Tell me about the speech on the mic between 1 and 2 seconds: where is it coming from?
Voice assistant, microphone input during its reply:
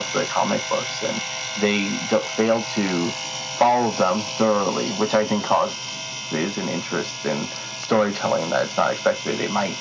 echo only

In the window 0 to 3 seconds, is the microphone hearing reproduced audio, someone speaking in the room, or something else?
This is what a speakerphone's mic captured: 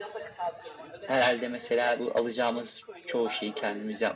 both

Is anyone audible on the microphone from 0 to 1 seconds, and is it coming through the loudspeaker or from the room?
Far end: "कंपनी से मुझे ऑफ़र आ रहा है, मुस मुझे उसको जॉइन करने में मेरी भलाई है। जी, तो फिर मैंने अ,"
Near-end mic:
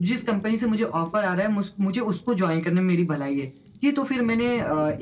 echo only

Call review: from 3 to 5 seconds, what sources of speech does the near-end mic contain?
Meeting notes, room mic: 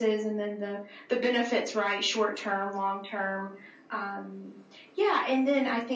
echo only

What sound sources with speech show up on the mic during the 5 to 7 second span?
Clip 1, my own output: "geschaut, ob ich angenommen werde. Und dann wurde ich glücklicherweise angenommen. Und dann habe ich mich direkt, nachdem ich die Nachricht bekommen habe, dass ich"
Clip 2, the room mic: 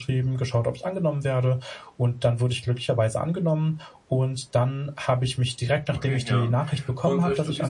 both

